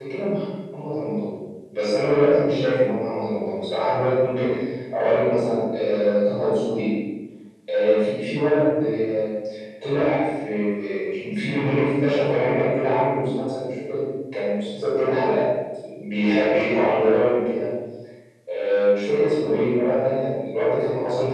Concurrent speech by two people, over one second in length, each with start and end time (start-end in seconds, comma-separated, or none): none